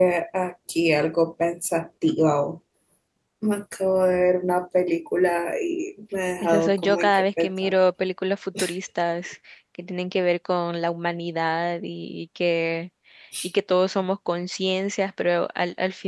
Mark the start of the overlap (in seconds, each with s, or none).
6.4 s